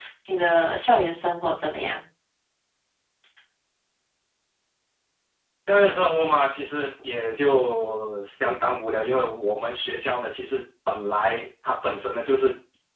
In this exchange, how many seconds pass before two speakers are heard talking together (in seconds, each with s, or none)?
none